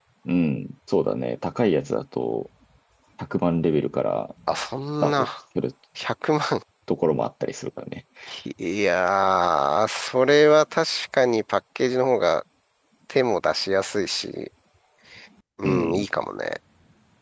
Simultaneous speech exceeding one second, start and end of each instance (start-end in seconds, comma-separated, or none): none